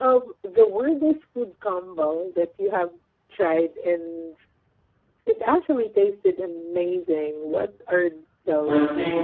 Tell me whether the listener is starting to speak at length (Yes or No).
Yes